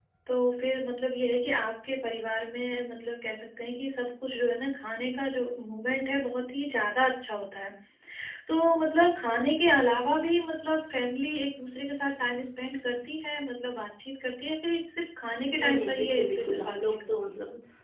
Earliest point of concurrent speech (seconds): 15.6 s

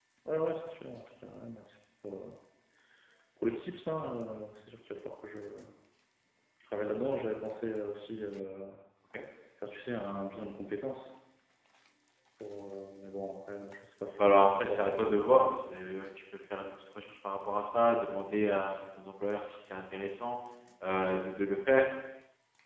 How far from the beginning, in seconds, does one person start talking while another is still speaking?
14.2 s

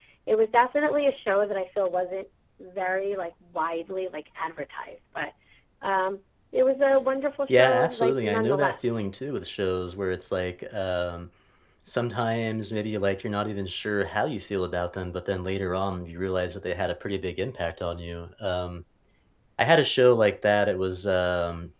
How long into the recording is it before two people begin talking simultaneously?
7.5 s

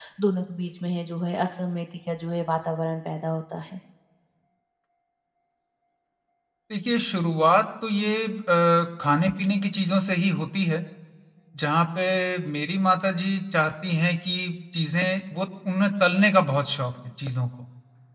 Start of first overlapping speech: none

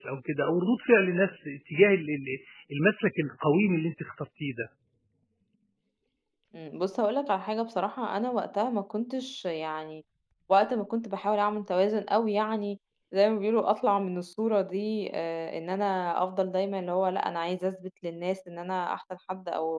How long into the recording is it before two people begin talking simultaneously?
none

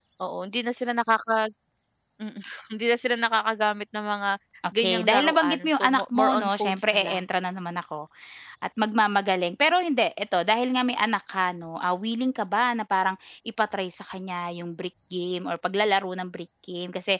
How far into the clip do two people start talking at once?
4.8 s

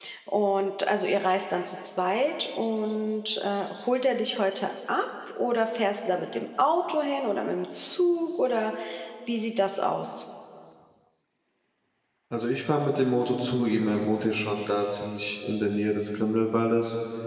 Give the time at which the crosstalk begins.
none

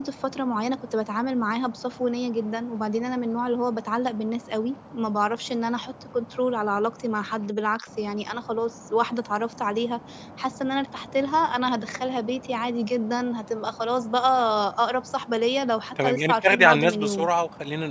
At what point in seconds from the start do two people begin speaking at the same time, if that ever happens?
16.0 s

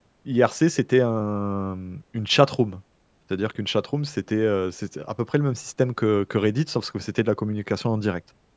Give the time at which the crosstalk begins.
none

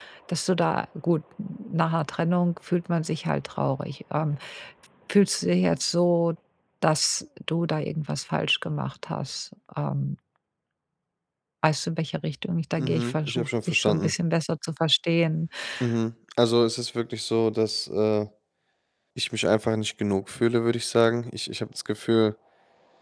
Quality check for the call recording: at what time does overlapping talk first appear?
12.8 s

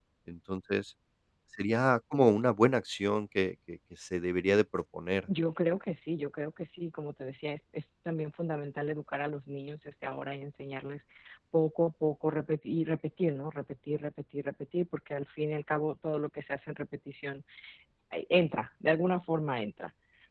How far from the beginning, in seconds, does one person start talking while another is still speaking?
none

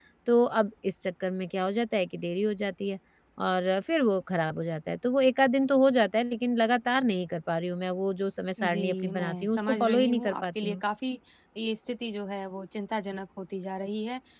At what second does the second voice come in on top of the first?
8.6 s

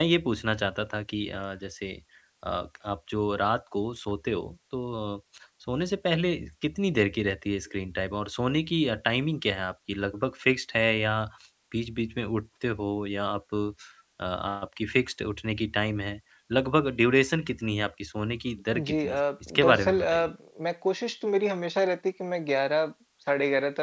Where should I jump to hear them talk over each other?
18.7 s

